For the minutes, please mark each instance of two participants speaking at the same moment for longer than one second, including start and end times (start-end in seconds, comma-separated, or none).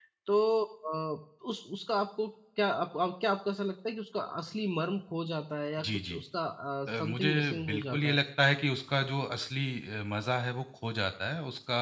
6.9-8.2